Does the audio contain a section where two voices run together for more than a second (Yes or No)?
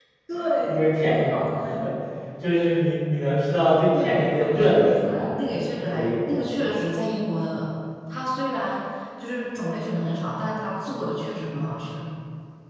Yes